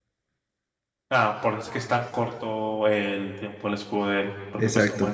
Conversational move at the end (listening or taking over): listening